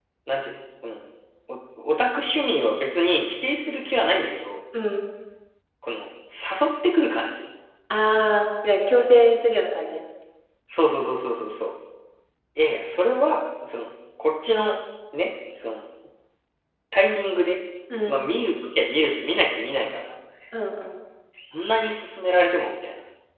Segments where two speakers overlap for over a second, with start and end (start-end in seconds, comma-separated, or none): none